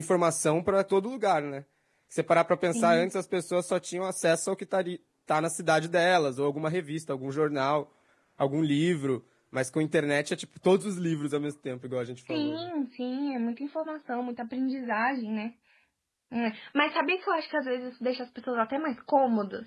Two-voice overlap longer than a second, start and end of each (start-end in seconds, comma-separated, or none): none